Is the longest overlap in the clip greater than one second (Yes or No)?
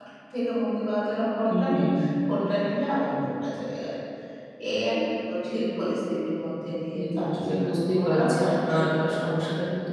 Yes